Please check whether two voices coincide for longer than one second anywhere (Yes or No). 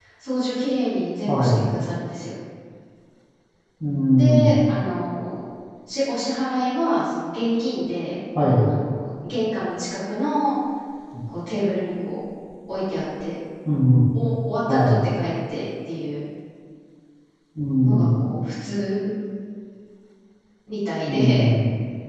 No